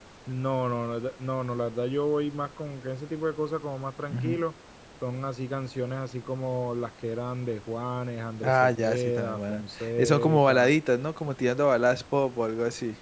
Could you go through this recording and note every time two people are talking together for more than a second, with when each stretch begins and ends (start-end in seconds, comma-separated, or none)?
8.4-10.7